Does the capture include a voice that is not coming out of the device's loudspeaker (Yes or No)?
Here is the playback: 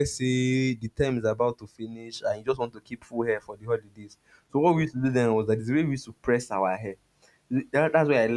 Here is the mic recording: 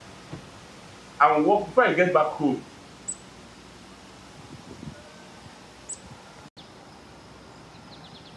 Yes